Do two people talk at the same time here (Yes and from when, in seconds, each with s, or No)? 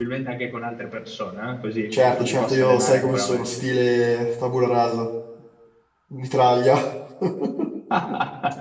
Yes, from 1.9 s